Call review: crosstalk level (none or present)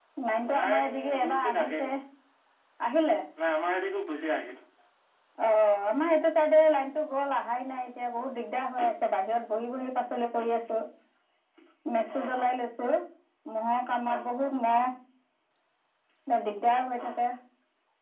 present